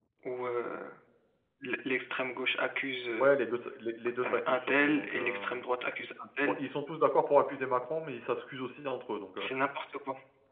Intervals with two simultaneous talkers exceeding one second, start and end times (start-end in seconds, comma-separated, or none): 4.2-5.5